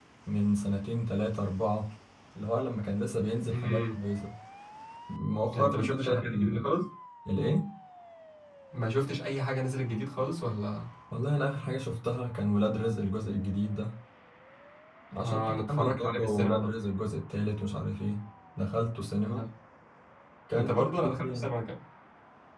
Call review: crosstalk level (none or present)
present